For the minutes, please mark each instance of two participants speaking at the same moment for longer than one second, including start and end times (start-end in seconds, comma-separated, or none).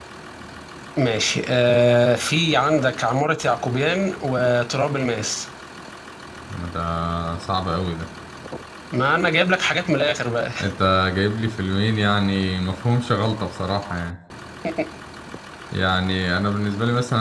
none